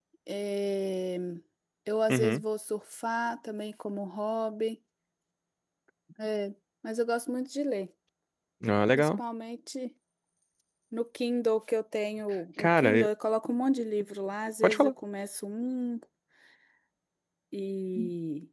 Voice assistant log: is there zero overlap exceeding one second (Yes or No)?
Yes